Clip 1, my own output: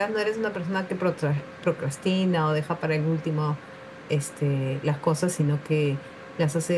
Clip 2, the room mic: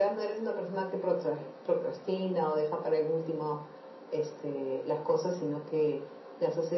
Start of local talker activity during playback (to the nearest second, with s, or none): none